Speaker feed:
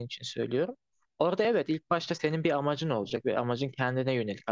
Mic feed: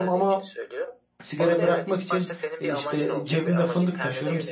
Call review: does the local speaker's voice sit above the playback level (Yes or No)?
Yes